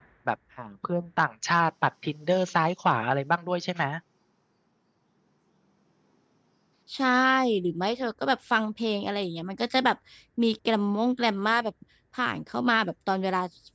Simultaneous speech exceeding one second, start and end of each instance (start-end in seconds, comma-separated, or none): none